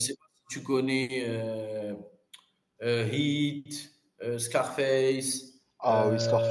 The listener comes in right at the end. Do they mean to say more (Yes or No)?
Yes